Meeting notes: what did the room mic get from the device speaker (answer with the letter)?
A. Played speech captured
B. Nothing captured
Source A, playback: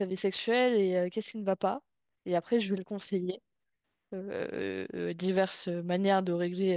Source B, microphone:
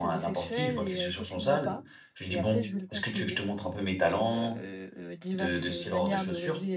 A